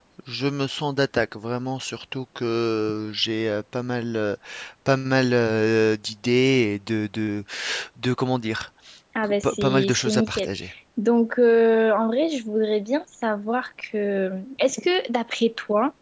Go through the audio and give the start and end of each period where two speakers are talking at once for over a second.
9.2-10.5

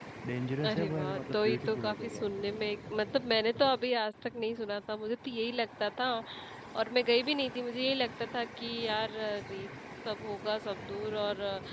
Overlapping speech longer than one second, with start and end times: 0.6-2.2

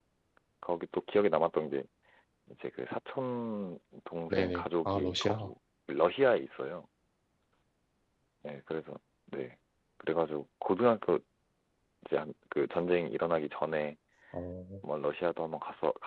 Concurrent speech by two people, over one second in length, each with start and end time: 4.3-5.5

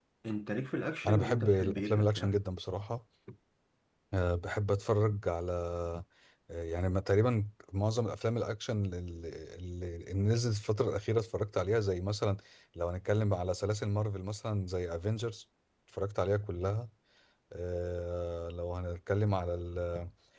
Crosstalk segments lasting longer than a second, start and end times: 1.1-2.4

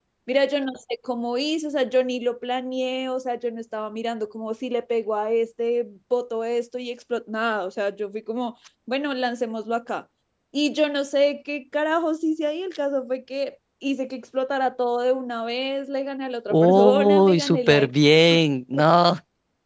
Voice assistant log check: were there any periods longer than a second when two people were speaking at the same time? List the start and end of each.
16.5-17.9

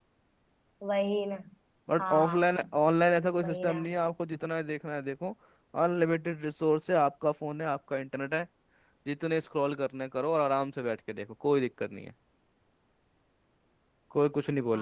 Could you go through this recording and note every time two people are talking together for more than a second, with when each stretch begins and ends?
none

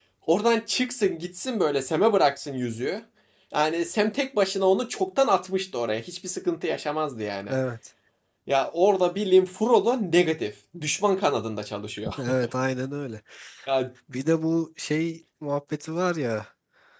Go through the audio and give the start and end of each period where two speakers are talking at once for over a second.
none

